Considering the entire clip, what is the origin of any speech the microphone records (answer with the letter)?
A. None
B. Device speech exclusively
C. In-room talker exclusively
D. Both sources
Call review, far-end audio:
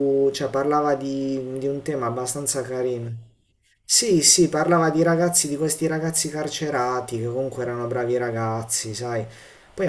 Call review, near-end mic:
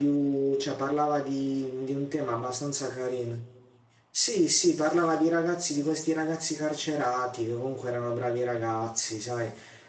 B